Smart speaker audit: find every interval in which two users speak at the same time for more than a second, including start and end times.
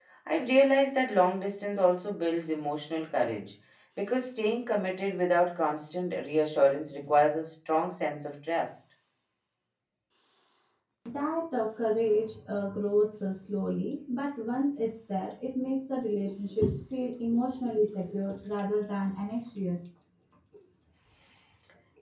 none

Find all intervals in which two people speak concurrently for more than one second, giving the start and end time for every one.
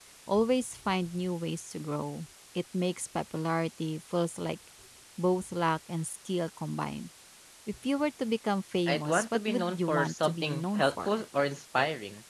8.9-11.2

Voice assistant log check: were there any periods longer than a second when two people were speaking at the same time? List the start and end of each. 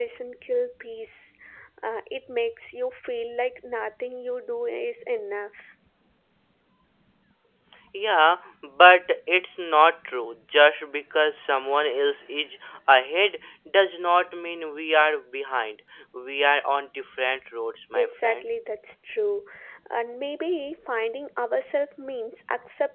none

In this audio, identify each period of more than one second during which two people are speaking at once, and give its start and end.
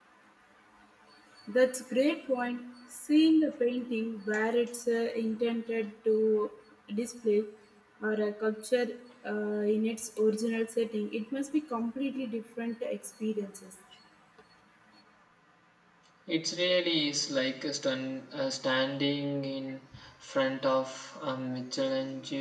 none

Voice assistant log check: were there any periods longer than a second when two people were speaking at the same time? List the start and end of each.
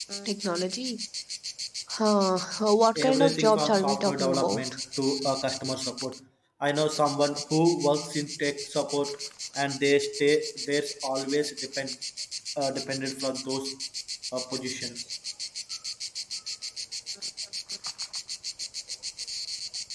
3.0-4.6

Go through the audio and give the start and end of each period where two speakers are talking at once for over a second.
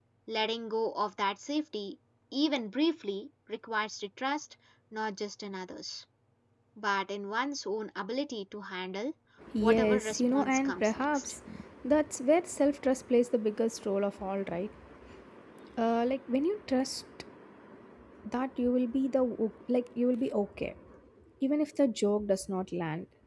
9.6-11.3

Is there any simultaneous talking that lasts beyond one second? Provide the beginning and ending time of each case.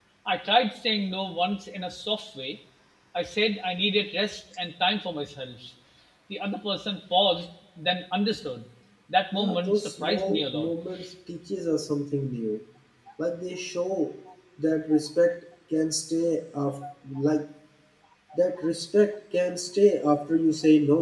9.3-10.7

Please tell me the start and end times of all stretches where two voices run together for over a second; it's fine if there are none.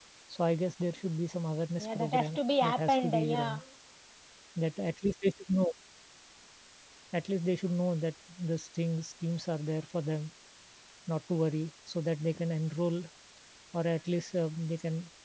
1.8-3.6

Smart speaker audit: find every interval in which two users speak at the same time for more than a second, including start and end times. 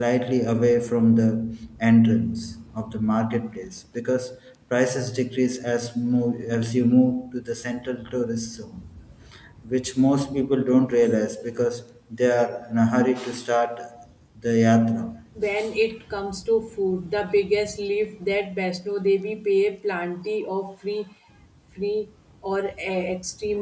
none

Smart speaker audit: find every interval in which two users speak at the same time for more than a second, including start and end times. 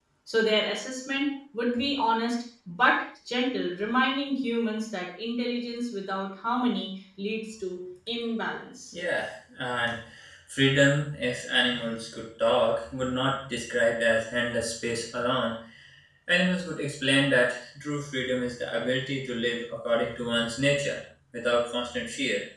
none

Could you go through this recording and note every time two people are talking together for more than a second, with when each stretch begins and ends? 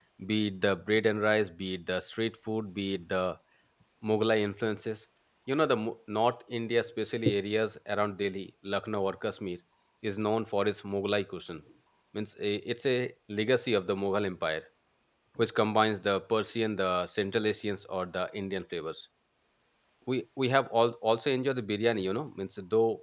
none

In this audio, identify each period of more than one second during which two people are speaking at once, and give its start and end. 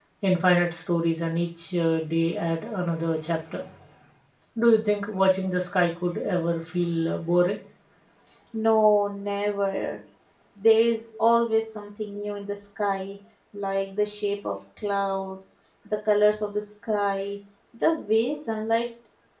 none

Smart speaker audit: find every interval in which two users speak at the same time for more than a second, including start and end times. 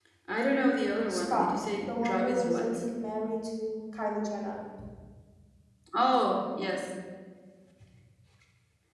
1.1-2.9

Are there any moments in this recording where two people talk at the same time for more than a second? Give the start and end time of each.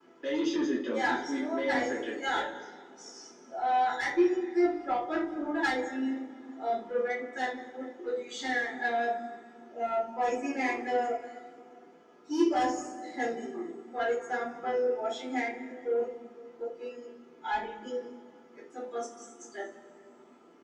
0.9-2.5

